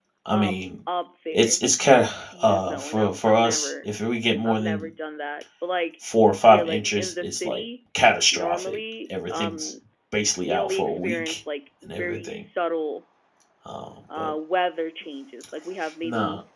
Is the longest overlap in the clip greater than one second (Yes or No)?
Yes